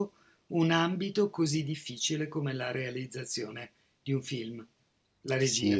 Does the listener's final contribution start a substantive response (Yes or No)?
Yes